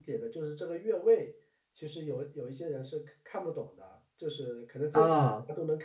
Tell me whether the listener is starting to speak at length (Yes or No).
No